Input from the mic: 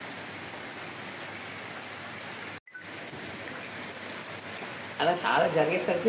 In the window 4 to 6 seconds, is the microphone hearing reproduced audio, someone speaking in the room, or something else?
user only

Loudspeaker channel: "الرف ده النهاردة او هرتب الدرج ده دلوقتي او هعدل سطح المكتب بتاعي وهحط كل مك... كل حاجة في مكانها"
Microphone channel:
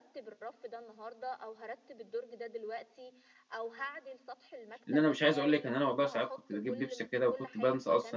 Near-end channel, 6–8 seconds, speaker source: both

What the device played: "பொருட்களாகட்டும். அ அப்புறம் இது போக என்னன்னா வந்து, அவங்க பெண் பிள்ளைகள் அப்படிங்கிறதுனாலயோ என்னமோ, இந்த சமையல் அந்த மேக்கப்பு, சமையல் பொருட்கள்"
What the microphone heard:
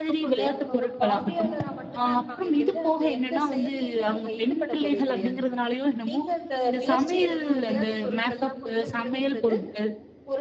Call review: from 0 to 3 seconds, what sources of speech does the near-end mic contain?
both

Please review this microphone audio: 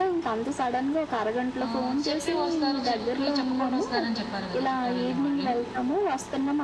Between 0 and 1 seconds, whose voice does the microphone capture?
echo only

